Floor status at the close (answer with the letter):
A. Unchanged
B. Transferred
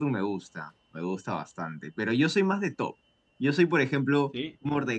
A